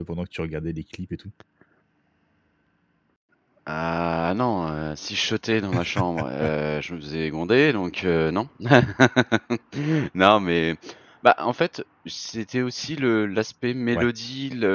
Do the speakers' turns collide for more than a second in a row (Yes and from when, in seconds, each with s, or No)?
No